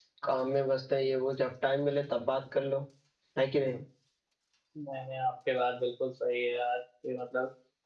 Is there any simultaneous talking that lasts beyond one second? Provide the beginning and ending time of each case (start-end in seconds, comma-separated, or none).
none